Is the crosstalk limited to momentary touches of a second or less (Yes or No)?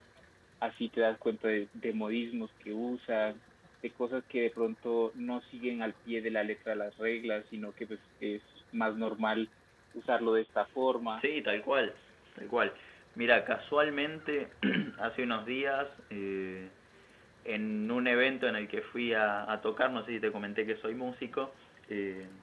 Yes